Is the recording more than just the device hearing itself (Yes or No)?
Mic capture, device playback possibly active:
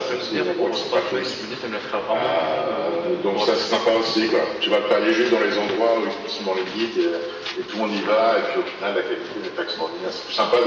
No